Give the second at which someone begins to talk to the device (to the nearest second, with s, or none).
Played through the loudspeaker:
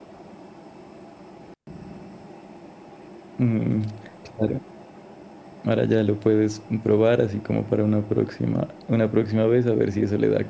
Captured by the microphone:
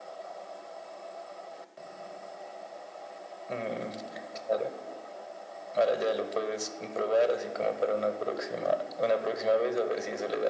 none